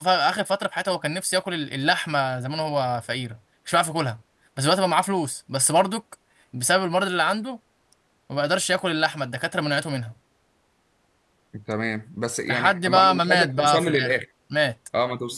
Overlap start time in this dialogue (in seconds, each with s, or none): 12.5 s